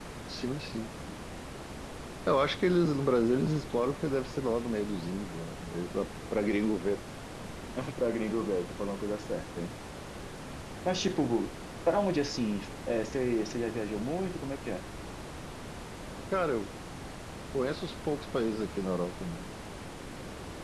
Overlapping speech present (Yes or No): No